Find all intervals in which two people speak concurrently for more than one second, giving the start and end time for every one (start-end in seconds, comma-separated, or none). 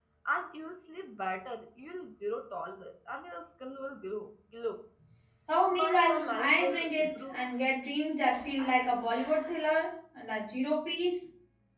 5.7-7.4